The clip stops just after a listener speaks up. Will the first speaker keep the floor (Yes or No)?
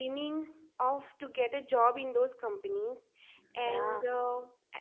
Yes